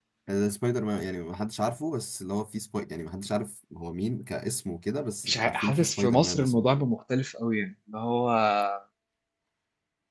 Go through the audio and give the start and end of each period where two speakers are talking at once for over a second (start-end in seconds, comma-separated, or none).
5.2-6.9